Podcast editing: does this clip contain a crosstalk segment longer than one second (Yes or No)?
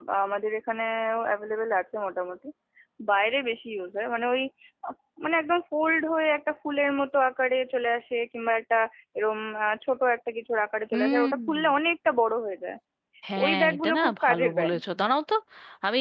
Yes